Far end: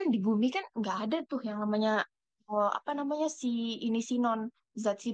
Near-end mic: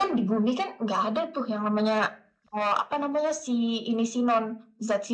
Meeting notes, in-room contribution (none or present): none